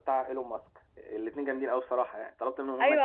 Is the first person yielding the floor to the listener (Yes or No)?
Yes